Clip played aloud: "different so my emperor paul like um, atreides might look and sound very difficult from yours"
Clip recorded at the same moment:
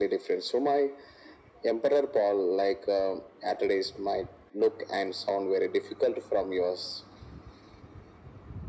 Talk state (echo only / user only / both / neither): echo only